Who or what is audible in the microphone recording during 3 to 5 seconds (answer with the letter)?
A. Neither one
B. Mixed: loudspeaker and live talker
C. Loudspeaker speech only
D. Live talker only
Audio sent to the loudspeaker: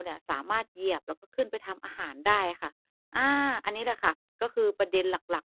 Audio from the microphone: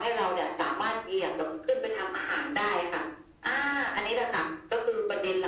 C